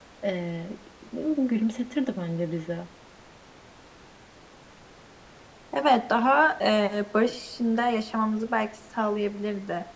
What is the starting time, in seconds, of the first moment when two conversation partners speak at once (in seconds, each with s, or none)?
none